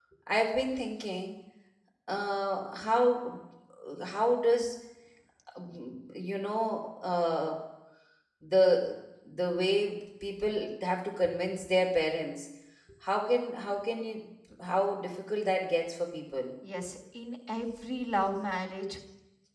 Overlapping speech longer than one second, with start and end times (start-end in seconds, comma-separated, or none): none